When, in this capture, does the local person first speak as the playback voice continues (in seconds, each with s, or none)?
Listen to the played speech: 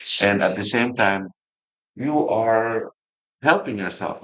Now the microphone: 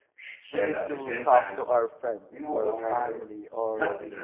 0.5 s